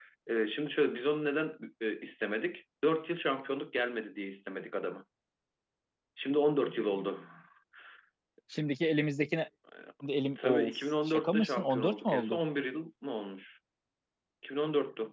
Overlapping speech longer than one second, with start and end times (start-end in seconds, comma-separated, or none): 10.4-12.4